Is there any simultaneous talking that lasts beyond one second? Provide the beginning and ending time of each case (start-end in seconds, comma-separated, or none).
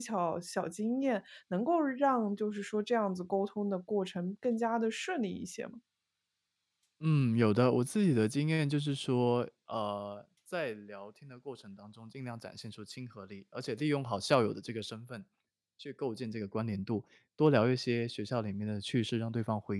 none